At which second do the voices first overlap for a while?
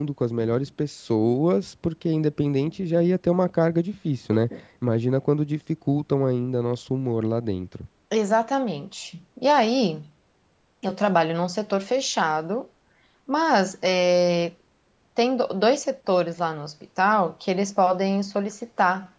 none

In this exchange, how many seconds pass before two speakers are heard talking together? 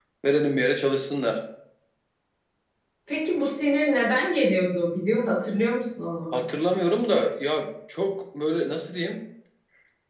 none

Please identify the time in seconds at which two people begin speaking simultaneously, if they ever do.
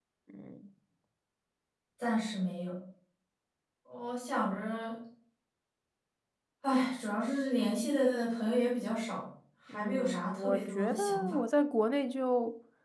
9.7 s

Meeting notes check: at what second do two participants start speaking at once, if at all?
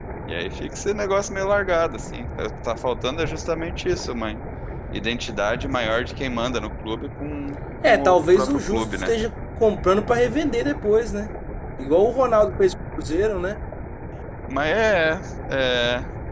7.8 s

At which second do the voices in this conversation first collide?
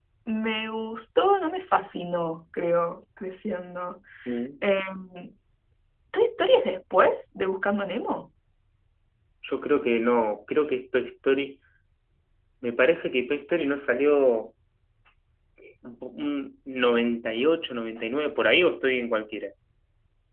none

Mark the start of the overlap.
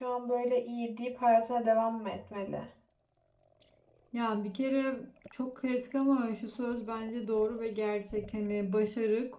none

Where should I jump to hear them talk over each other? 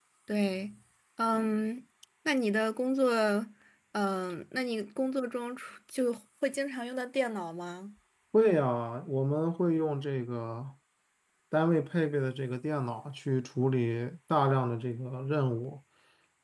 none

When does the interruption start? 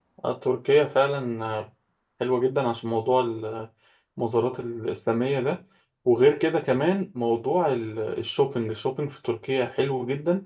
none

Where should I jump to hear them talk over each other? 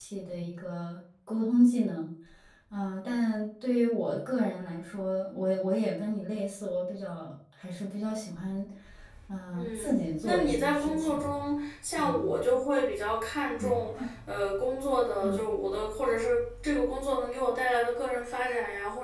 9.6 s

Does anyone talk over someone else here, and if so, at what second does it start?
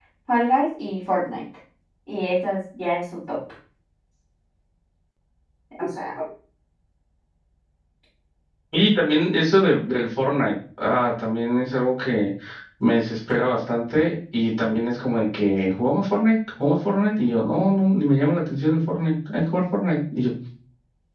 none

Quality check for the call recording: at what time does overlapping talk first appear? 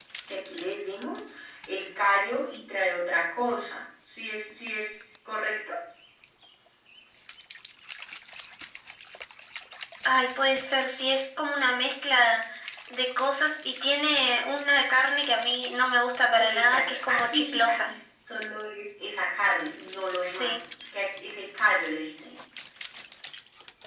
16.4 s

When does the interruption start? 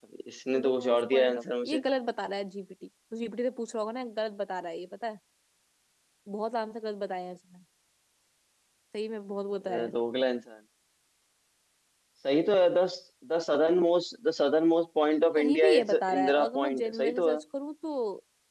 0.5 s

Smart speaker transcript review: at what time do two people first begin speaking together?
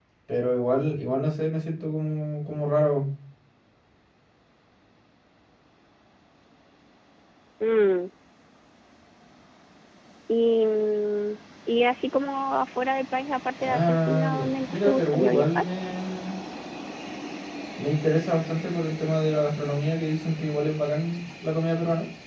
13.6 s

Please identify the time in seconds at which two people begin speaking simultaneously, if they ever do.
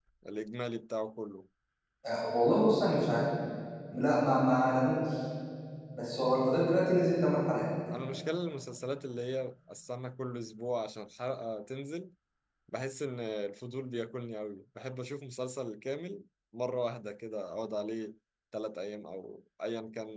none

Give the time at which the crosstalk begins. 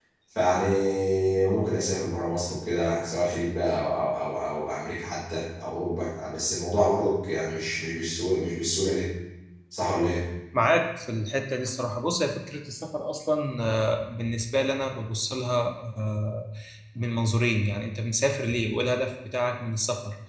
none

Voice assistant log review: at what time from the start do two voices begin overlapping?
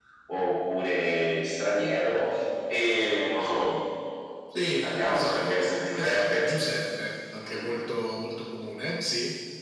4.6 s

